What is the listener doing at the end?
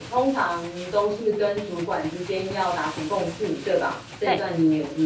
listening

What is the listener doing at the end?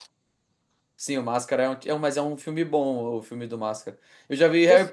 listening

